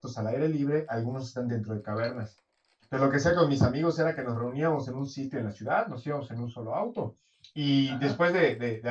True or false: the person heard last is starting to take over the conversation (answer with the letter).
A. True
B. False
B